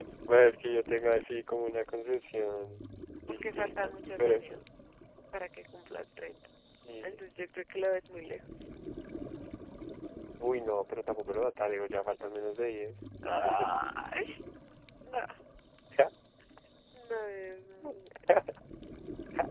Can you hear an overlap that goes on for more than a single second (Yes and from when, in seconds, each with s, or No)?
Yes, from 3.3 s